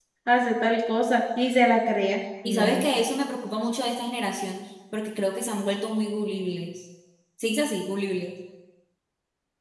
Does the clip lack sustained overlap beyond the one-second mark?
Yes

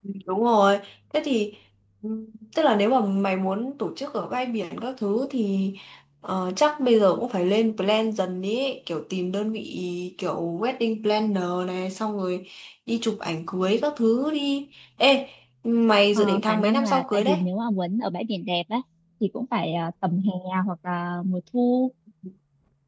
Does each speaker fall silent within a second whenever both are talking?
No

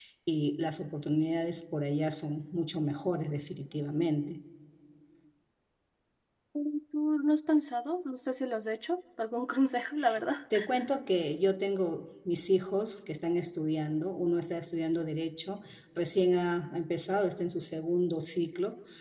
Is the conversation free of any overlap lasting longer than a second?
Yes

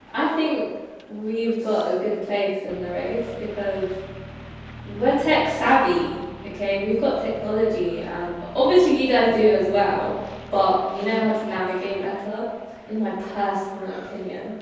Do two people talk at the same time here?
No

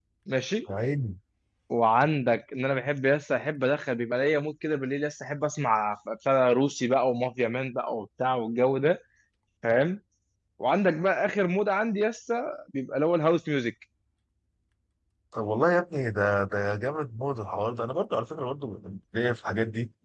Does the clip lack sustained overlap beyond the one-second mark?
Yes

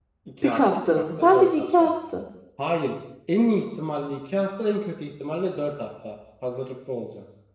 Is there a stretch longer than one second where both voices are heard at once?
Yes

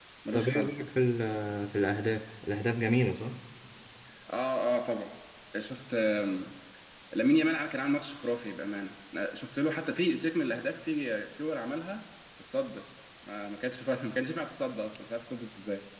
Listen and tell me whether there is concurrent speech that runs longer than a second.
No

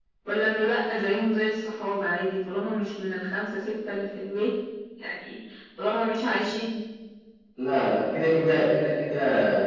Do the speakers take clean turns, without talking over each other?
Yes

